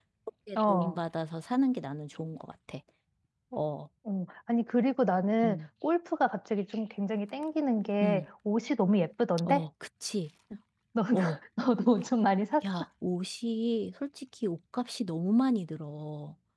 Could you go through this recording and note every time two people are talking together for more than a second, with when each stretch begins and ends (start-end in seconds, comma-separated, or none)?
none